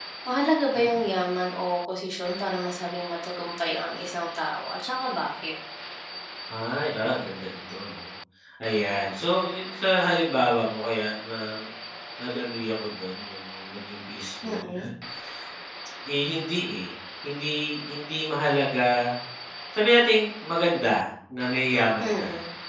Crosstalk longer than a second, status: none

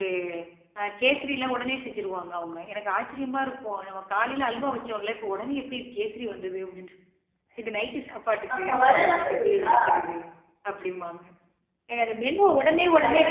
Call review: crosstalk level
present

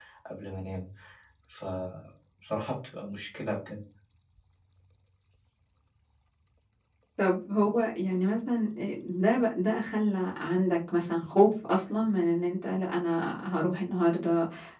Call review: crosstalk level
none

